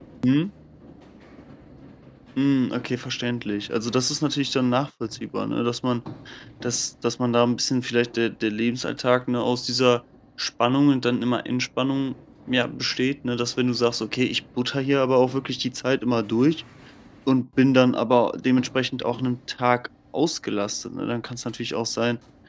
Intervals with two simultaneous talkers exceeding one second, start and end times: none

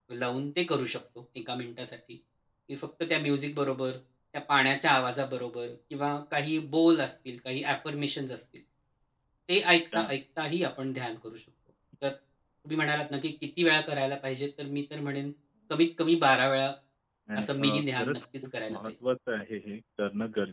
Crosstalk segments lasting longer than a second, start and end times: 17.4-18.9

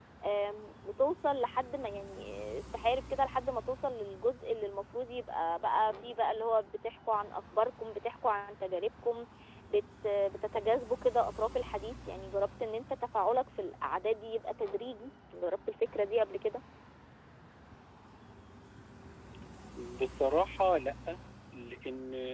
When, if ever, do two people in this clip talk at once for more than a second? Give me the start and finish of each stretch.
none

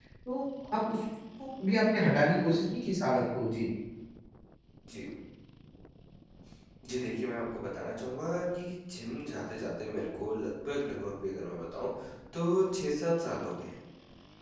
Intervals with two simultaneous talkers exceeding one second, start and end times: none

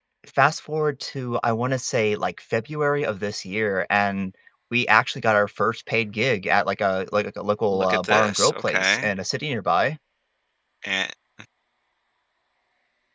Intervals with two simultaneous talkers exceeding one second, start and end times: 7.7-9.1

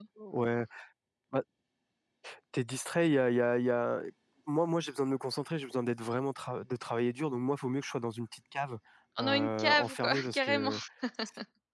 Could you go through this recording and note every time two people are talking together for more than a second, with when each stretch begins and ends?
9.2-10.7

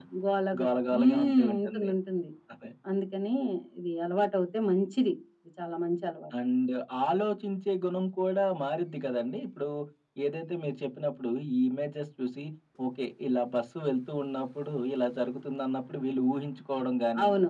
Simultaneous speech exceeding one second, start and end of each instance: 0.6-1.9

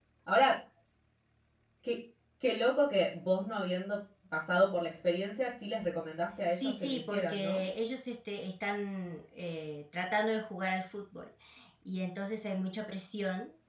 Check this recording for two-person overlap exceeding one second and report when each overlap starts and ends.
6.5-7.7

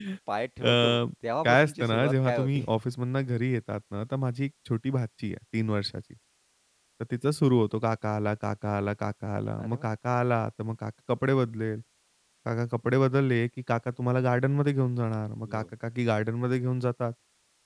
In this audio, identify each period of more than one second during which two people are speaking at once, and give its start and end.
1.4-2.7

